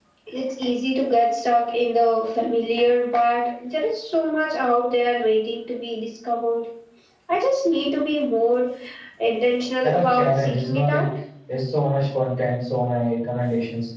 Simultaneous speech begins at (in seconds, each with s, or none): 9.8 s